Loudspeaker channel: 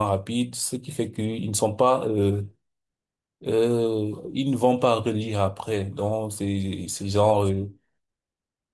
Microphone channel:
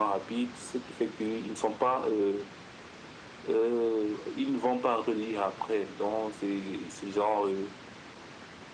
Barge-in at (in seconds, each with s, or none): none